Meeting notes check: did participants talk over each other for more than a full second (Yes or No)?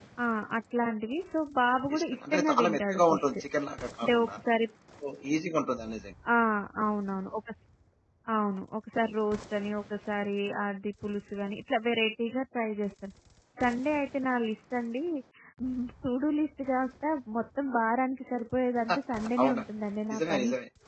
Yes